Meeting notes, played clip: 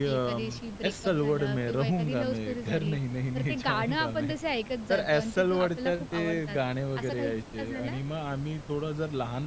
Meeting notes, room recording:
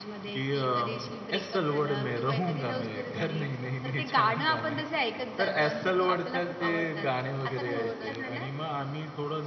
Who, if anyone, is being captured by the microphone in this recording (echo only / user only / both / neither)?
both